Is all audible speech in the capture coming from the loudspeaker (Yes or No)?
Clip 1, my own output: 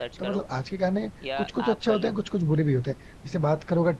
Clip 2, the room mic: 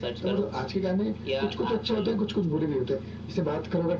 Yes